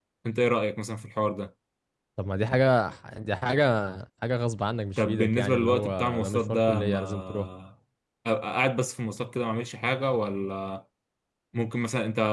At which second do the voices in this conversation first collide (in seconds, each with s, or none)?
5.0 s